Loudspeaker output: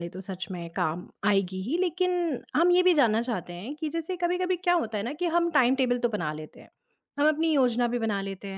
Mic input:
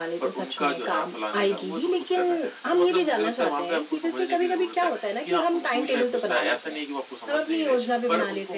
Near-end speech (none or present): present